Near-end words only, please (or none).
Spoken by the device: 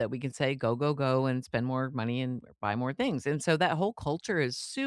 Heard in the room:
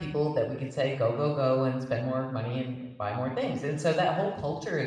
none